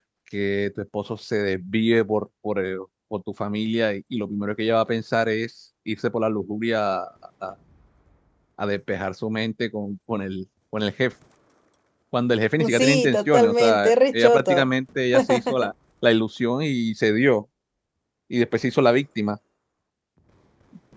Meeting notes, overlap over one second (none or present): present